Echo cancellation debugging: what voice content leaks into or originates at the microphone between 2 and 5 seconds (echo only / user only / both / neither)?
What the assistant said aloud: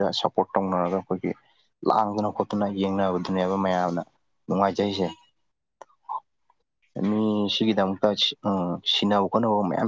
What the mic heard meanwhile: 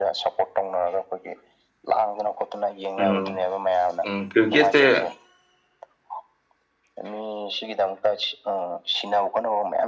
both